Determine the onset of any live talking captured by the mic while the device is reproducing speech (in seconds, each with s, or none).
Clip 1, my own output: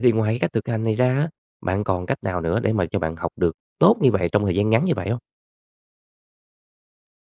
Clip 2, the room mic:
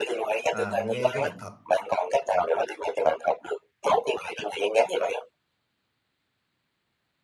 0.5 s